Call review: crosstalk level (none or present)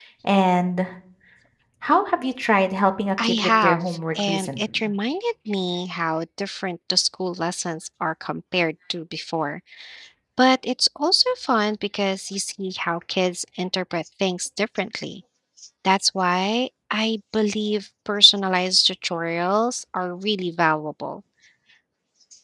present